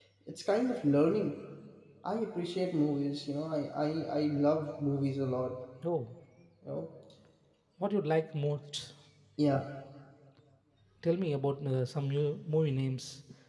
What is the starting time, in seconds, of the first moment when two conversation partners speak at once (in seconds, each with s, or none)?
none